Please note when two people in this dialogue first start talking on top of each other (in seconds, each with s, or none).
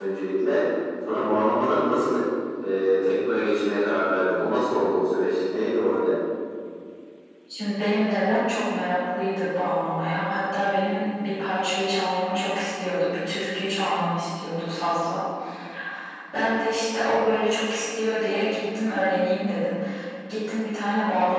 none